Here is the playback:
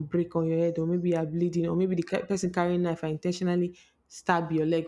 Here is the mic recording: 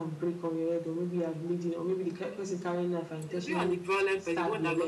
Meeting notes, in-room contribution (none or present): present